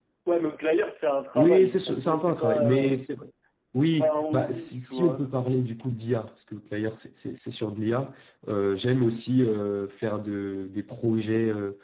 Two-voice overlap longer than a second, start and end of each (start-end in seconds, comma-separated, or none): 1.3-2.9, 3.8-5.2